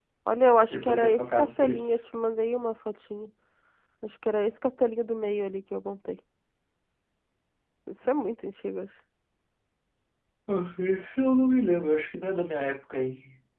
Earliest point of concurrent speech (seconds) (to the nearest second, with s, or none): 1 s